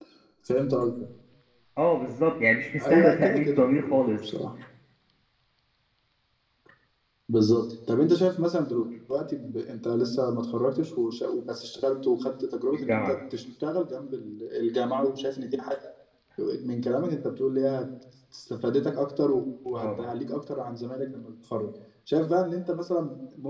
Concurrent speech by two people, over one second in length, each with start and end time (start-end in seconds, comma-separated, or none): 2.8-4.2